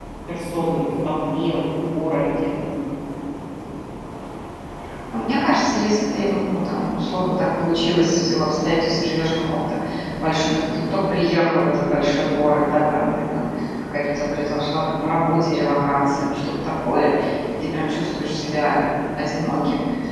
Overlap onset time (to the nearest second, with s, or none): none